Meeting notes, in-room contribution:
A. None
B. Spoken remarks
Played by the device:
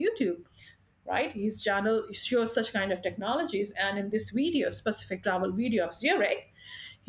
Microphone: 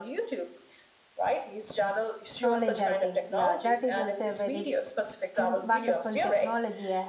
B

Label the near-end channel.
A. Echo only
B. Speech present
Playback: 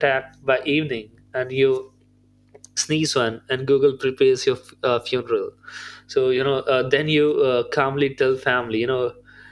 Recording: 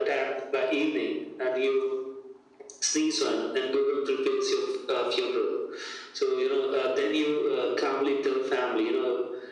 A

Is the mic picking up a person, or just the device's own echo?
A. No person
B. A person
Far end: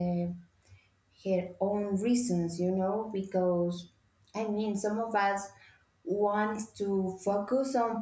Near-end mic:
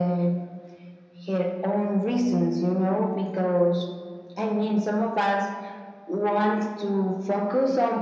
A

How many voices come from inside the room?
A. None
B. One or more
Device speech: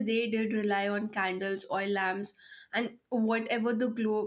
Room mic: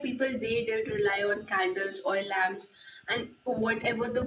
A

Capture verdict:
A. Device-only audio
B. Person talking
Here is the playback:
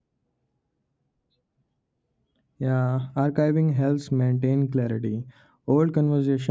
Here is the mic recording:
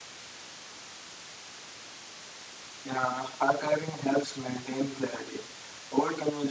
A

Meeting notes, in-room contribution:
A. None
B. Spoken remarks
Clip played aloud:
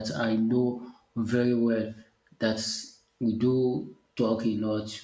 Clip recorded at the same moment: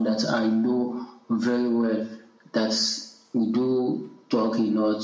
A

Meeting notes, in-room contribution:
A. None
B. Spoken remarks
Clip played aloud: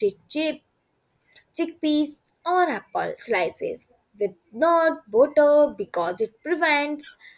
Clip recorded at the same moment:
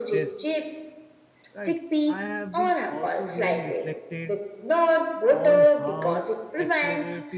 B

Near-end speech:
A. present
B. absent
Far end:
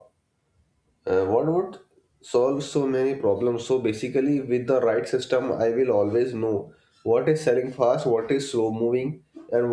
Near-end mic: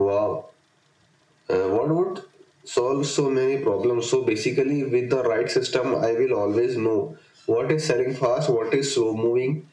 B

